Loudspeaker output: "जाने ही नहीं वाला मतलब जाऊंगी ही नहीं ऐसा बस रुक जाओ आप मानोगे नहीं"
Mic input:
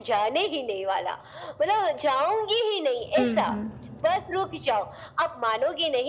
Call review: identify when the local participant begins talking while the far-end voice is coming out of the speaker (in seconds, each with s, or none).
3.2 s